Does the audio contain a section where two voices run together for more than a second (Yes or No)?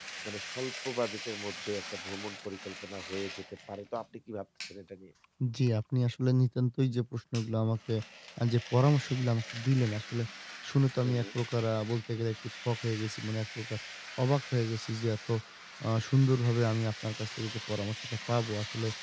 No